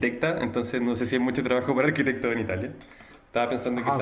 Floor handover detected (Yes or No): Yes